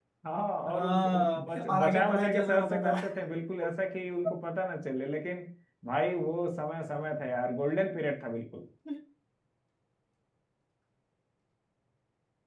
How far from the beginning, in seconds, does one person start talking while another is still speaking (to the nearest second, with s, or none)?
1 s